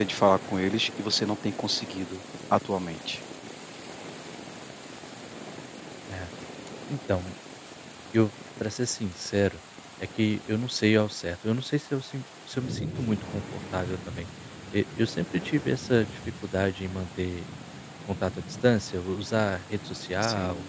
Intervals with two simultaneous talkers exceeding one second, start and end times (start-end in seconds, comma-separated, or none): none